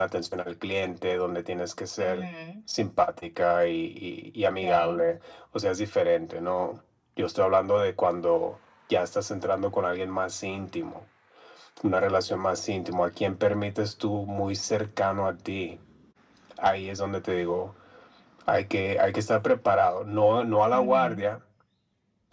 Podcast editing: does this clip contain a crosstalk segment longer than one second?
No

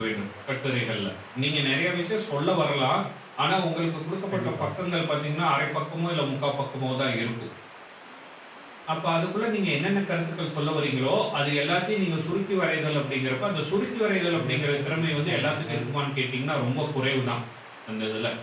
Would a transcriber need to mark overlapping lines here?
Yes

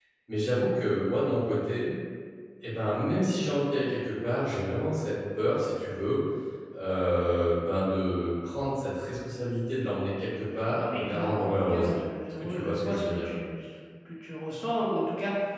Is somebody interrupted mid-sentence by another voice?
Yes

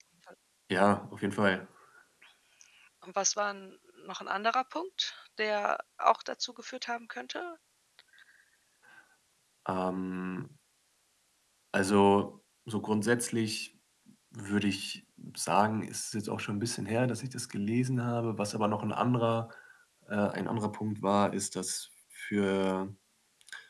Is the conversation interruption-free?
Yes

